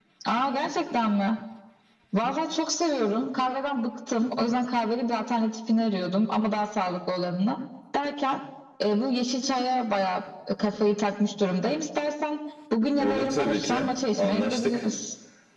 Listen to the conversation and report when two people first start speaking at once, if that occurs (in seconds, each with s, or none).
13.0 s